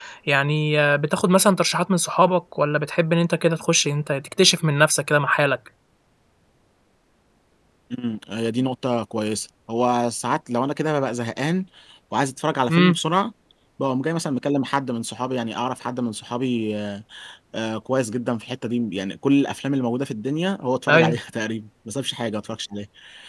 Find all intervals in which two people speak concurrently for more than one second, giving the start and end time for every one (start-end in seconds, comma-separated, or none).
none